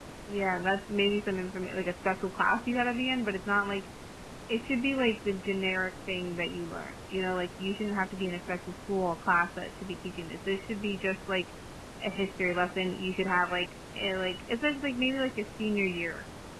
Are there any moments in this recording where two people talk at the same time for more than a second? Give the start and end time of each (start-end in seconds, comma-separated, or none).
none